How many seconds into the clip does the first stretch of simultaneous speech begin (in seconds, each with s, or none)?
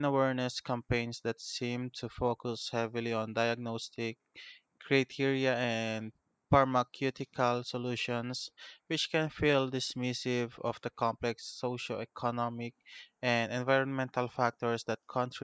none